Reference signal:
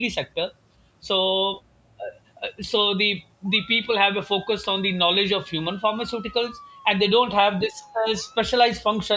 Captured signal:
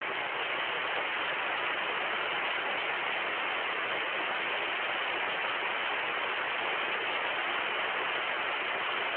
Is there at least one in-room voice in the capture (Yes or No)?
No